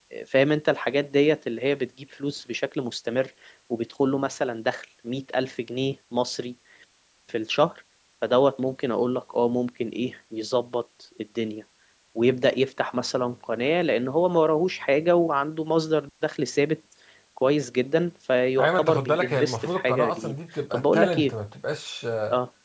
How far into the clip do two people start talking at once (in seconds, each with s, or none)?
18.6 s